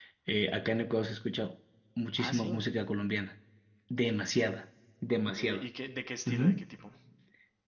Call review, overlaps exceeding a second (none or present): none